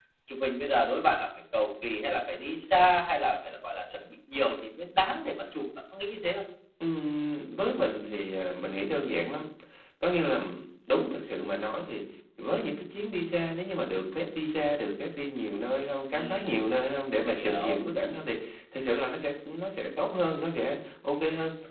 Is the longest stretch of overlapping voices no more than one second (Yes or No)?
Yes